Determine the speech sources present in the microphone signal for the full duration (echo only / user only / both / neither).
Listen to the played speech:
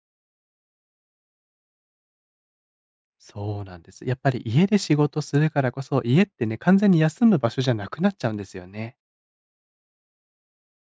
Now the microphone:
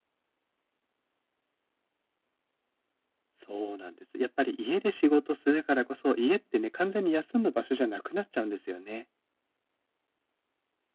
echo only